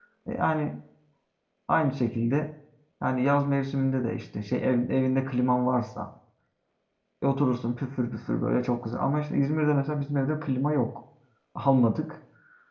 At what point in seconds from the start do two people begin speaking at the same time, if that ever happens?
none

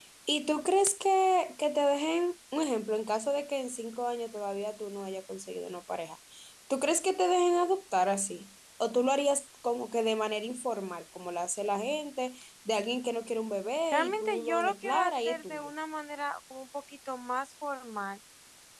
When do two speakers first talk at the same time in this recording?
13.9 s

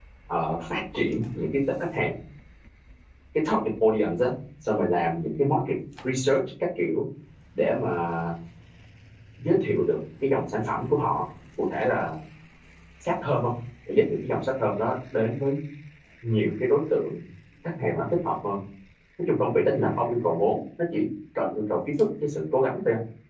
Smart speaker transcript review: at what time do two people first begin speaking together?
none

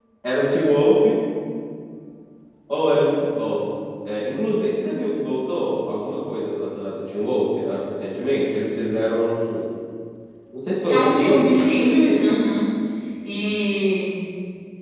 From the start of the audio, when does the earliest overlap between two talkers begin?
10.9 s

